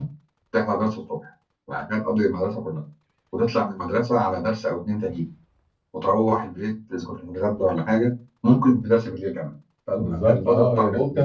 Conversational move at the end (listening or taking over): taking over